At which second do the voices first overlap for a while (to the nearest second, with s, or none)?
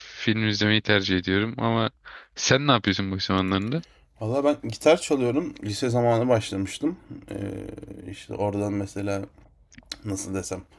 none